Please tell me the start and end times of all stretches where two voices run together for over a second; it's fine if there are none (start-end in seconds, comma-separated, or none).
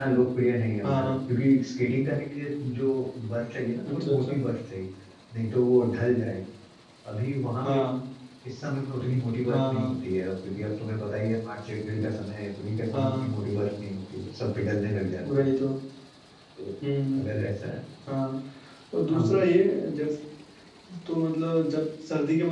none